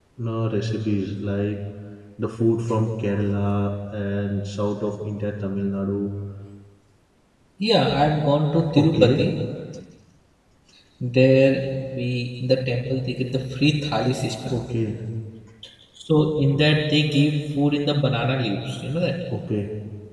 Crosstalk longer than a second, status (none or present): none